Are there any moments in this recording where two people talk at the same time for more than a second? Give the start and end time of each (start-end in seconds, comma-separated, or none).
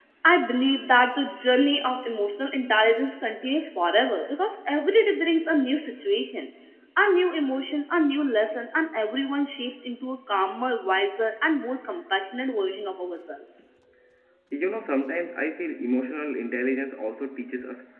none